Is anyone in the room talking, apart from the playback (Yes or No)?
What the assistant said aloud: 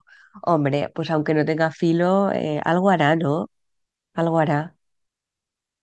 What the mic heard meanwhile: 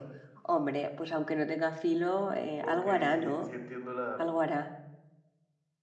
Yes